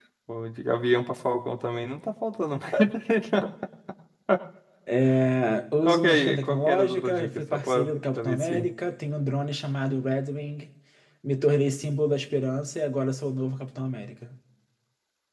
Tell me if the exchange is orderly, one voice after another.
No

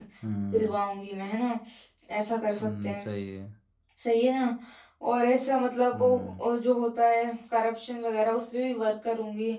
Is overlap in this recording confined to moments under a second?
Yes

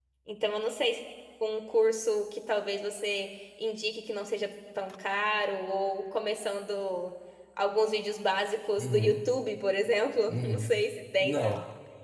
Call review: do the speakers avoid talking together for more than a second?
Yes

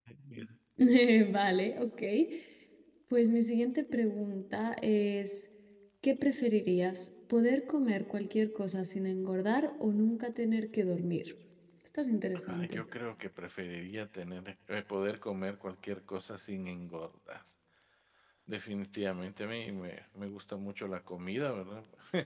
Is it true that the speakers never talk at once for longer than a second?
Yes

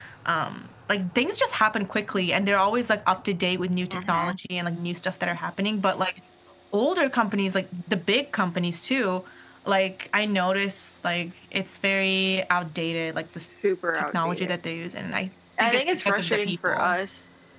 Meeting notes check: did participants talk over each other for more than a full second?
Yes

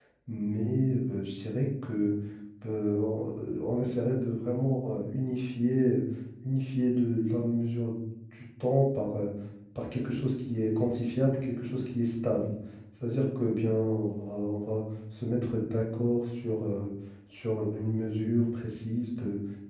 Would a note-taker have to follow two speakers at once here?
No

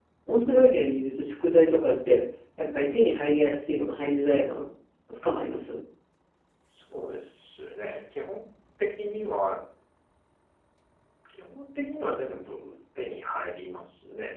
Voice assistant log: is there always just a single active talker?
Yes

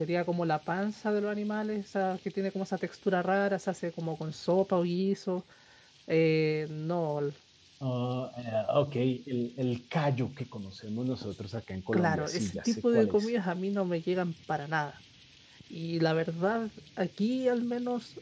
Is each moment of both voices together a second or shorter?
No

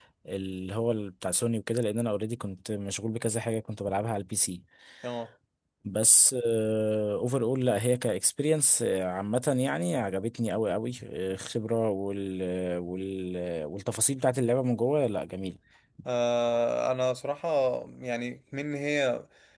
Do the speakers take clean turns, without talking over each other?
Yes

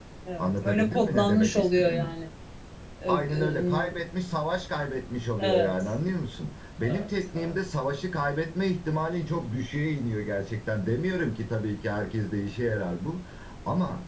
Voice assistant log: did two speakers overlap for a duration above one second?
Yes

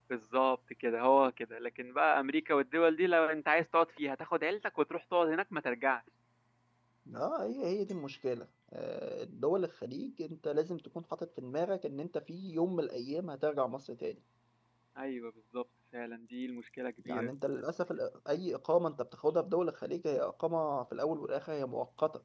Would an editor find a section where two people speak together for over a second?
No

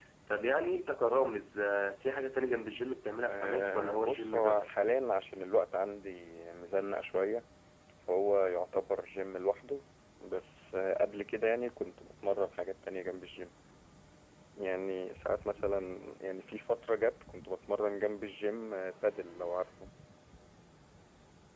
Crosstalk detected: Yes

